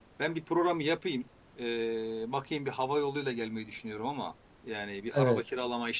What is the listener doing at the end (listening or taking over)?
listening